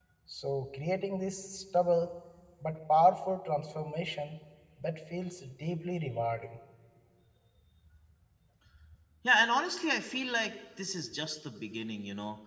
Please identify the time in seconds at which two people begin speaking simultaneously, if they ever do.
none

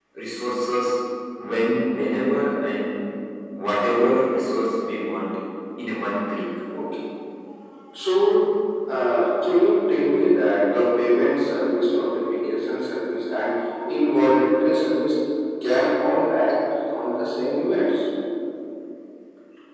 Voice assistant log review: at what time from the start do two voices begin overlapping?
none

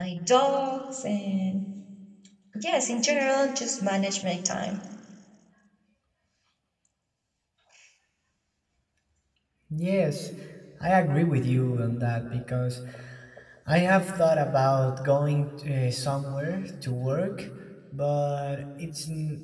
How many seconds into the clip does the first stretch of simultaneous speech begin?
none

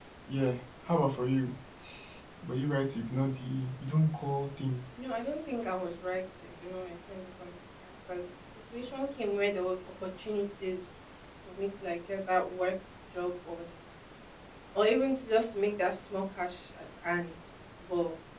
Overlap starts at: none

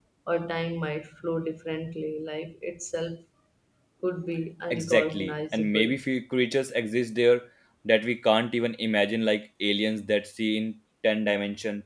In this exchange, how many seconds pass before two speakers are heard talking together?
4.7 s

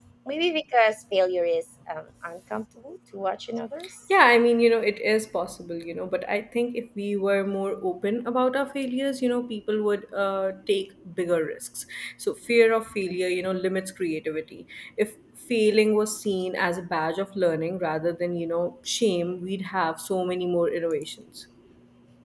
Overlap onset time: none

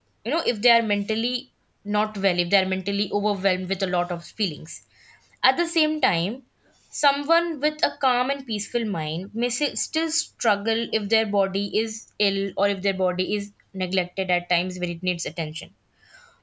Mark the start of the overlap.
none

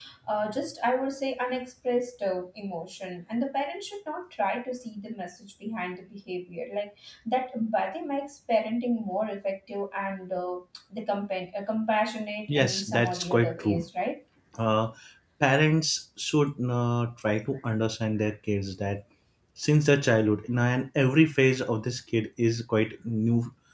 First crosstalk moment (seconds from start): 12.5 s

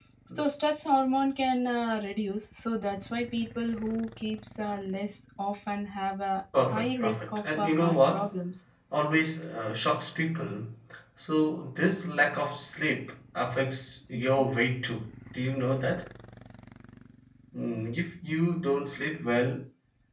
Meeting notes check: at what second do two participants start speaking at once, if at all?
6.5 s

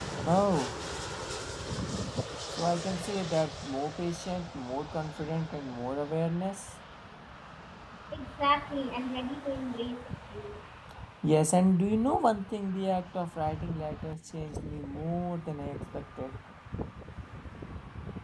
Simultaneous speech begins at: none

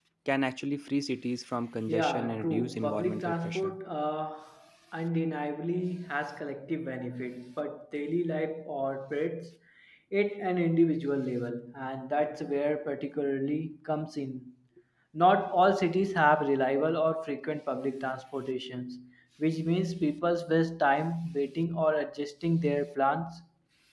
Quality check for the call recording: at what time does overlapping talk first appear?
1.9 s

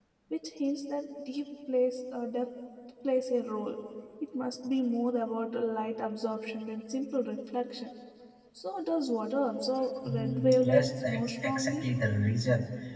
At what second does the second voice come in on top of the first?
10.0 s

